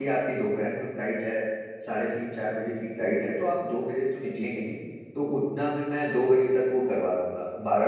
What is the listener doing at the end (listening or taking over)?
listening